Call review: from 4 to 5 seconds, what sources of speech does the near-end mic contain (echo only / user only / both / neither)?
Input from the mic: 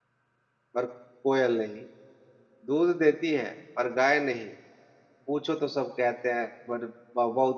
user only